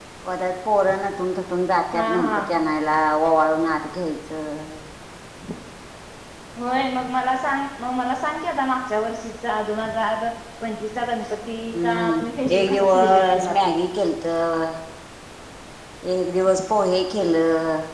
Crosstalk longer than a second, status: present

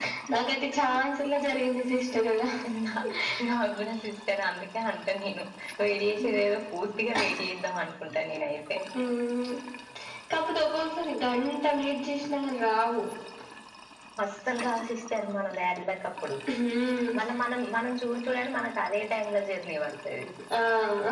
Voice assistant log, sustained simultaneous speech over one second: none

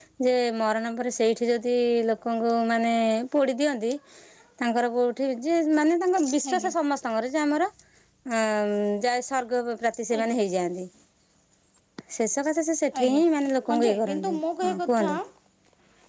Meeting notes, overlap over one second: present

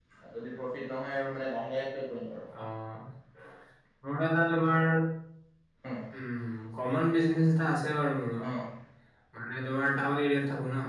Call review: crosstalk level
none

